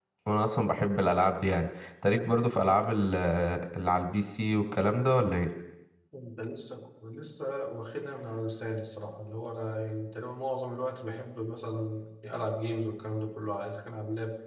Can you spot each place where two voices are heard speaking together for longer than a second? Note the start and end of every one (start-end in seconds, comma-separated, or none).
none